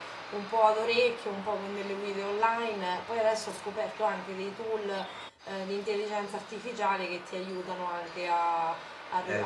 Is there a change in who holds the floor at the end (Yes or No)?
No